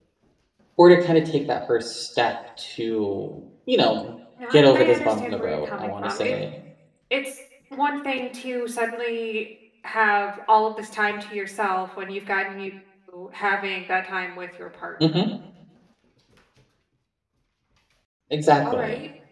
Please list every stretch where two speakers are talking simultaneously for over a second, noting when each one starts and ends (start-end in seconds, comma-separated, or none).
4.5-6.3